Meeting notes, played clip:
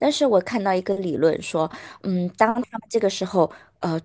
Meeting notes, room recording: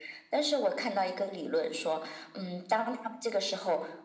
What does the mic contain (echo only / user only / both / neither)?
echo only